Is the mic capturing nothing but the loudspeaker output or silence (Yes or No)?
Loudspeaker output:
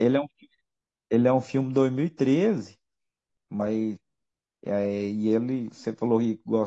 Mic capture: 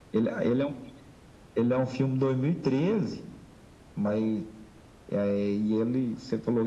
Yes